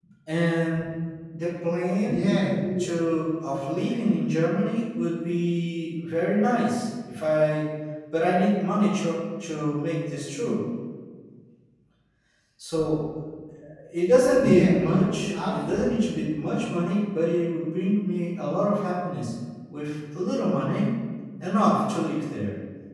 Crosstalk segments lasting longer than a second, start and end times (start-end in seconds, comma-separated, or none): 14.4-15.8